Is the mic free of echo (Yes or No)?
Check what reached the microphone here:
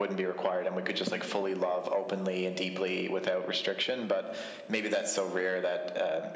No